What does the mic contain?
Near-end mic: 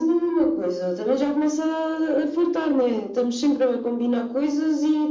echo only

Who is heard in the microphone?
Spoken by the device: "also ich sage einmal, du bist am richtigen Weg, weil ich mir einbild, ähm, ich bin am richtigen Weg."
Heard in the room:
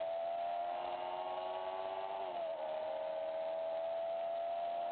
neither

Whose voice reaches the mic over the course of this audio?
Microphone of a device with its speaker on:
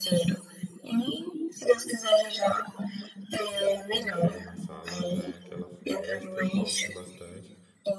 both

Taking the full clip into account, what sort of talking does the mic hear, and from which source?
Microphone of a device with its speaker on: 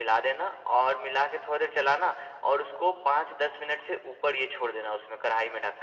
echo only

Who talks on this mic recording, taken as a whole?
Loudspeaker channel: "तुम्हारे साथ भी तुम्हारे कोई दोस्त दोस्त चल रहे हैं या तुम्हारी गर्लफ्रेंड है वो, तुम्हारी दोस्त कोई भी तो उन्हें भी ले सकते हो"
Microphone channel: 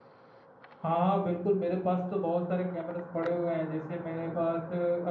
user only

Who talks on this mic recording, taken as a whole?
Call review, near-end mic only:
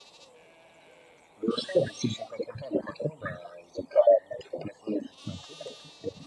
echo only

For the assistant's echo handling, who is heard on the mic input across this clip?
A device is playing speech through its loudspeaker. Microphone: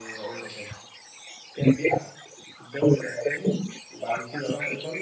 echo only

